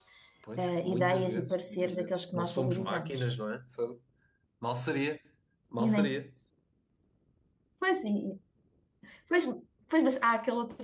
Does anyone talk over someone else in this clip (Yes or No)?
Yes